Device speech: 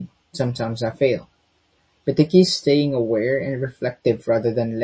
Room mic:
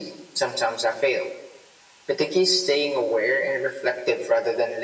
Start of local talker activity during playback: none

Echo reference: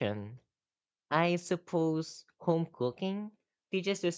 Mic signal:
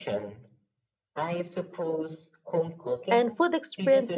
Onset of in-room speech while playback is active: 3.1 s

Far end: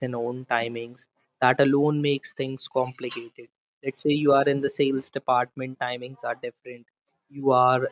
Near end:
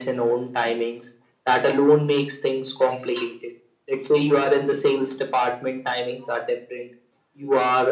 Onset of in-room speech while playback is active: none

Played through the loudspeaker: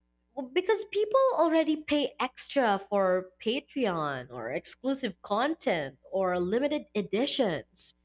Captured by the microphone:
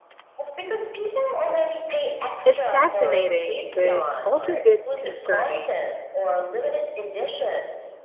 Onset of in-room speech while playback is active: 2.4 s

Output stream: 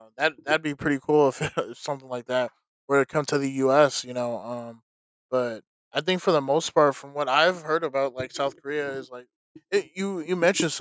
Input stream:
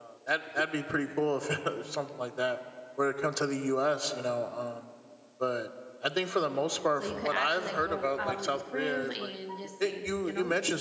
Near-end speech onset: 6.9 s

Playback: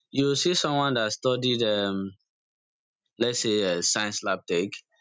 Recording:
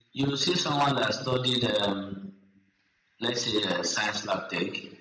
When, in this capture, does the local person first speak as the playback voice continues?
none

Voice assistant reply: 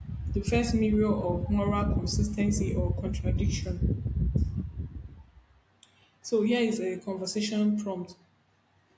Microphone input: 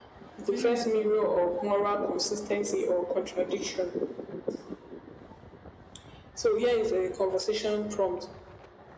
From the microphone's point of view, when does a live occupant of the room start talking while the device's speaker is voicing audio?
0.3 s

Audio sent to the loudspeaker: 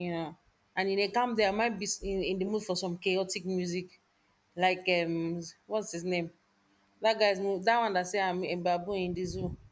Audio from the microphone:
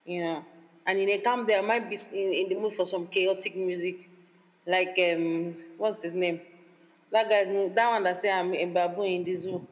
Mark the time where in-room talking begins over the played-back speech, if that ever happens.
none

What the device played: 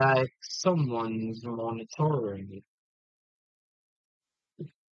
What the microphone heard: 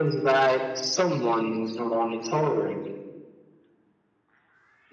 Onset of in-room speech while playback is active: none

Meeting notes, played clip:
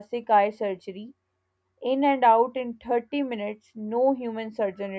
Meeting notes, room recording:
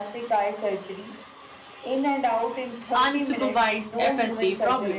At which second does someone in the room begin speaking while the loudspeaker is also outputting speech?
3.0 s

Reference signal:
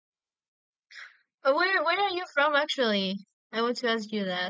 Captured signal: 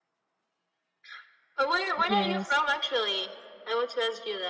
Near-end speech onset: 2.1 s

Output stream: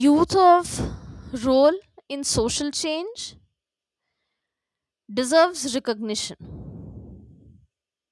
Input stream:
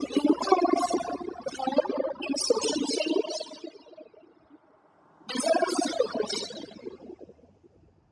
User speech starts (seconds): none

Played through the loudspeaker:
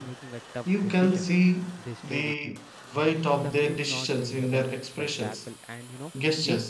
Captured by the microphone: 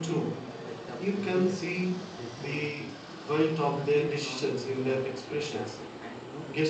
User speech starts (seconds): none

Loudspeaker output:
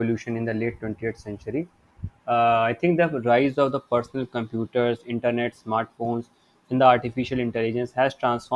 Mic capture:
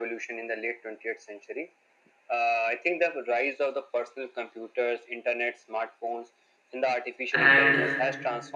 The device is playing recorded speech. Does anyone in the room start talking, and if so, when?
7.3 s

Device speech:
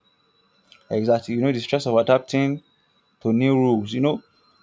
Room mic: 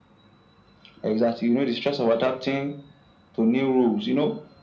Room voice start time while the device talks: none

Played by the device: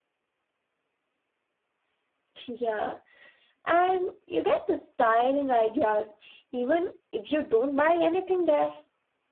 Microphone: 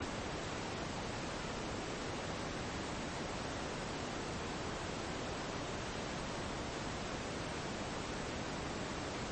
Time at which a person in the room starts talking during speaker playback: none

